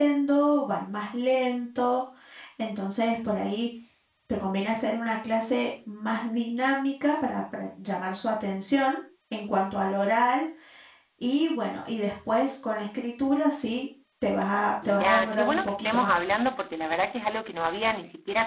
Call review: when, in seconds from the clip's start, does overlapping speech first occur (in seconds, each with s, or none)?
14.8 s